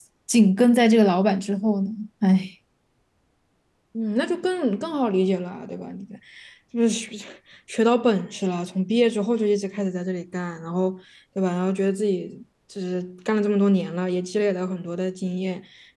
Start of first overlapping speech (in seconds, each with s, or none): none